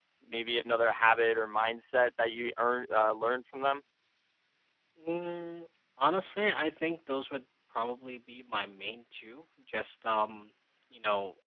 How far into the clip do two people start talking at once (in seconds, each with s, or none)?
none